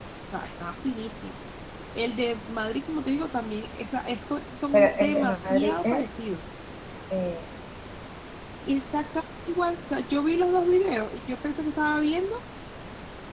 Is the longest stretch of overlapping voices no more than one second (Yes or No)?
No